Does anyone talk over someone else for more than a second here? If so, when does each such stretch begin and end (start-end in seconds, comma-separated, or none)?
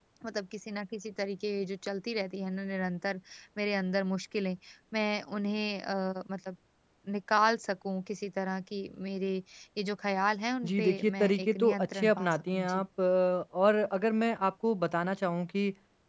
10.7-12.8